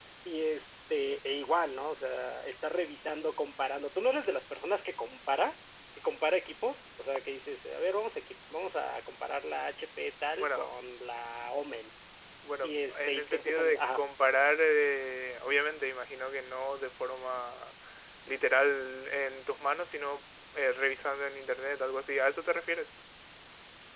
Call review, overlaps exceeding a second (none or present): present